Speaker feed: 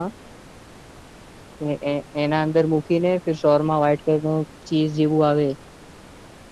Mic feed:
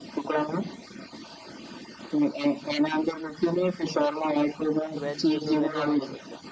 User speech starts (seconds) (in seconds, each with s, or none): 5.0 s